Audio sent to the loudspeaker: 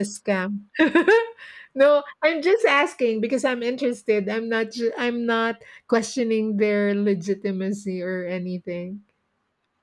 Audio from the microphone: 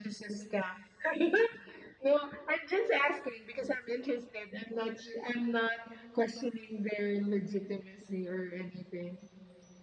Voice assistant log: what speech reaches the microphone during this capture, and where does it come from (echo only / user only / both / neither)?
echo only